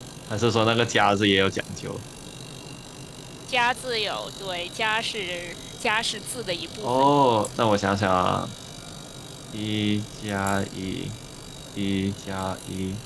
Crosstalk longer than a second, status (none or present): none